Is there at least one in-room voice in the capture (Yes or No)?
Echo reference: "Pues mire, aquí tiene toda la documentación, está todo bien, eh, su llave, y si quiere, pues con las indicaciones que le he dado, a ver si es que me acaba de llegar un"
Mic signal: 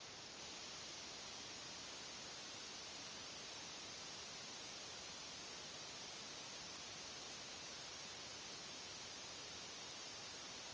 No